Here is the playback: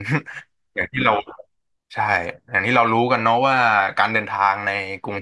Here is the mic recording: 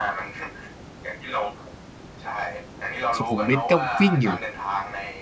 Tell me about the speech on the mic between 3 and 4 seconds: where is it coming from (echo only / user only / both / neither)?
both